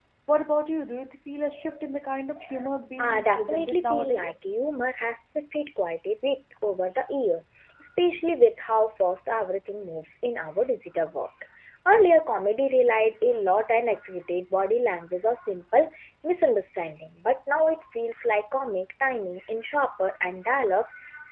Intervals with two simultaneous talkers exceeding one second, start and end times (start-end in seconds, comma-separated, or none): 3.0-4.5